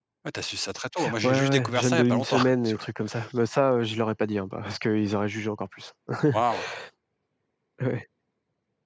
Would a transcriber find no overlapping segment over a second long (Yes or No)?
No